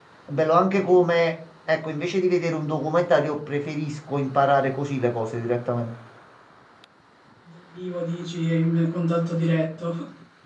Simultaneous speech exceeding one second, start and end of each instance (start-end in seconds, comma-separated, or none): none